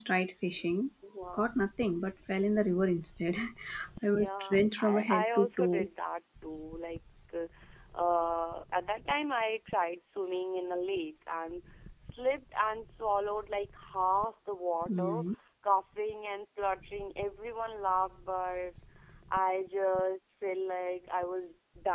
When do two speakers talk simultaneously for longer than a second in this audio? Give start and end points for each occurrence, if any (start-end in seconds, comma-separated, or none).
4.1-5.9